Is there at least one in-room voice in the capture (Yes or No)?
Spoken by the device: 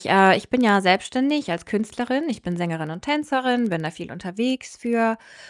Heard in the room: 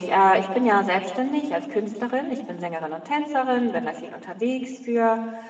No